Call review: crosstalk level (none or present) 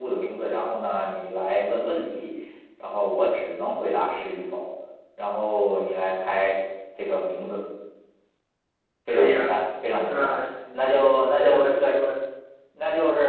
present